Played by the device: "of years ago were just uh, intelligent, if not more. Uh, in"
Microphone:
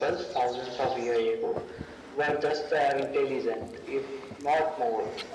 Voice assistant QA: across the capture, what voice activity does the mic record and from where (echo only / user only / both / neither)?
echo only